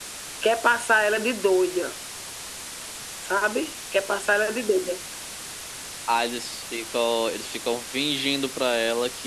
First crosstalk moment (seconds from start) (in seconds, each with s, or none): none